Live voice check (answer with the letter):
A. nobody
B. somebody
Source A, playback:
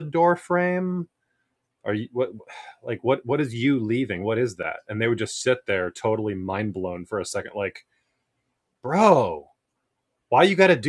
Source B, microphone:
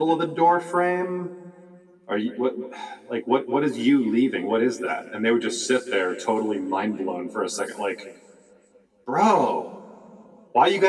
A